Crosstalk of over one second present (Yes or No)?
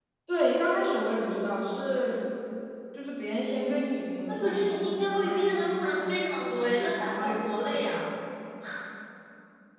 Yes